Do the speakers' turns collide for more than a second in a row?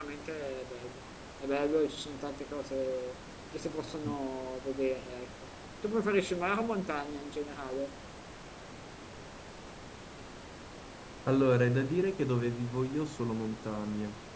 No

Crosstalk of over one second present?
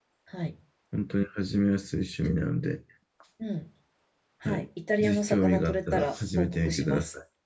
Yes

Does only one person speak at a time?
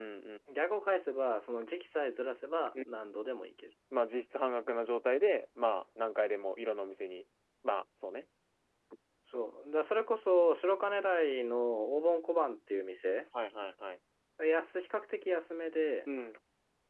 Yes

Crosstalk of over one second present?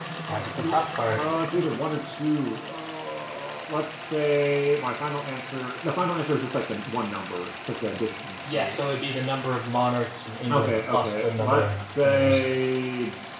Yes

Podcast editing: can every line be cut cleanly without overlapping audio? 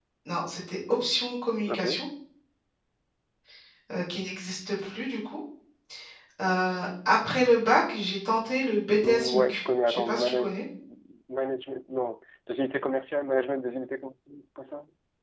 No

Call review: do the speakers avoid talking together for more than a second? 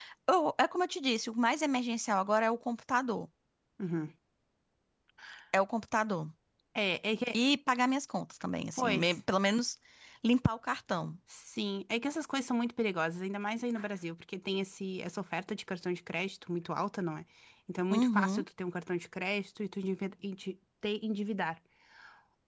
Yes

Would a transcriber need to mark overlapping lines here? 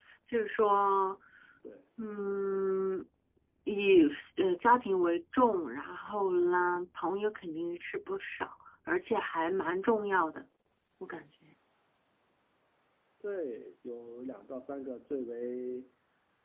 No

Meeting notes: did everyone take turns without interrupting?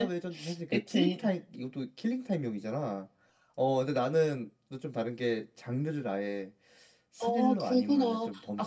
No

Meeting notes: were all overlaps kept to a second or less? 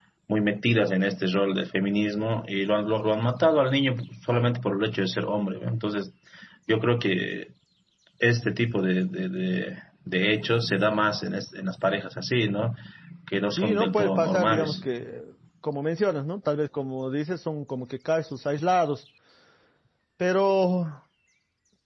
No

